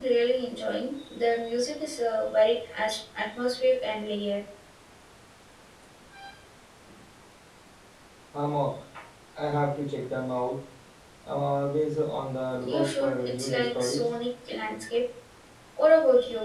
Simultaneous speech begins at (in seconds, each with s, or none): 12.6 s